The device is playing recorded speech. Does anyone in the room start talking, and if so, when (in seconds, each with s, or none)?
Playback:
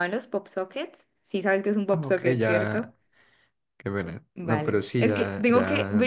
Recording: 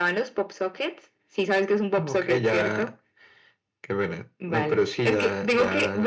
none